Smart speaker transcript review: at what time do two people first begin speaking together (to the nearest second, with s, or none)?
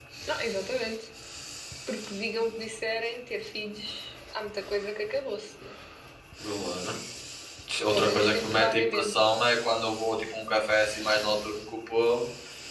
8 s